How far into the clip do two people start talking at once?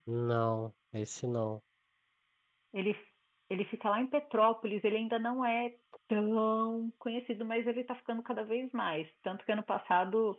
none

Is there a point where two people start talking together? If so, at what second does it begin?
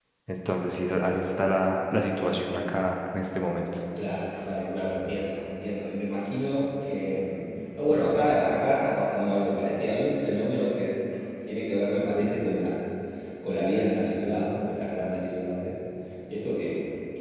none

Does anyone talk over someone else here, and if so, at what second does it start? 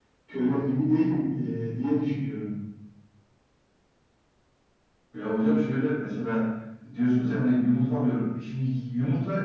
none

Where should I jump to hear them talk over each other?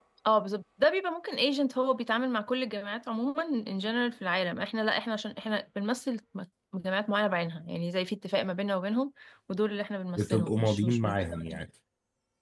10.2 s

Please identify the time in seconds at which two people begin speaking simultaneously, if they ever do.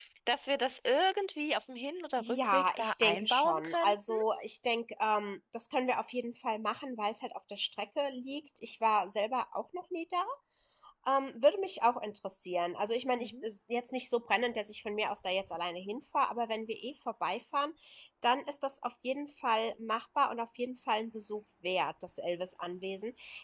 2.2 s

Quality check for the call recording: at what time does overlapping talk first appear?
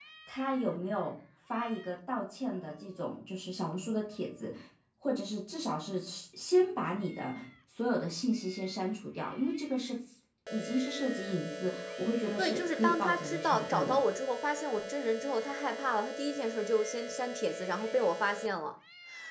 12.4 s

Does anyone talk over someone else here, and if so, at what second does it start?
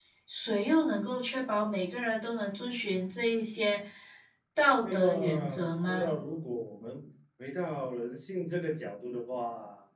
4.8 s

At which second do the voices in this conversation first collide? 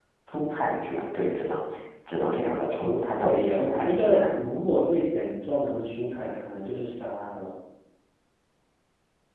2.8 s

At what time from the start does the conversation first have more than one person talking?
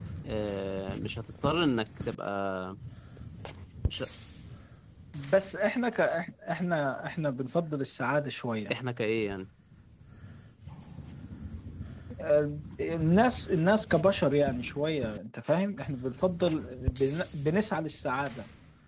none

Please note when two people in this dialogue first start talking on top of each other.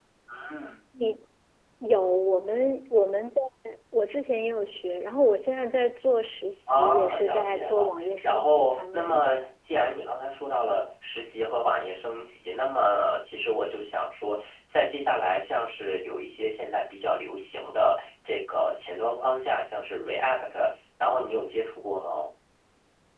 6.7 s

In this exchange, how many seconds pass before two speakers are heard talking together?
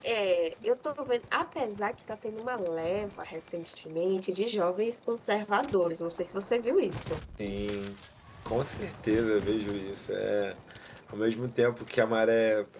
none

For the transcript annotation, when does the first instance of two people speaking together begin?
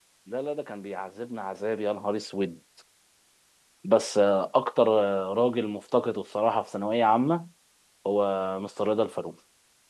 none

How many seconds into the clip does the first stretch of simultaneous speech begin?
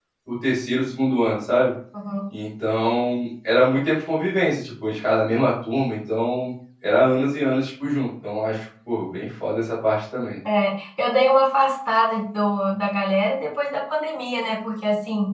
none

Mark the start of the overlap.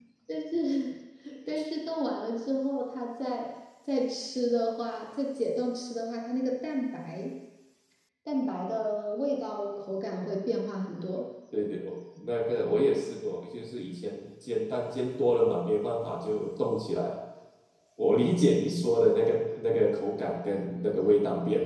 none

